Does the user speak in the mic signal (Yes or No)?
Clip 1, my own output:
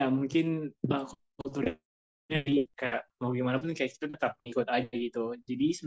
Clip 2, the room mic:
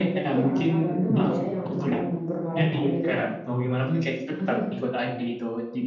Yes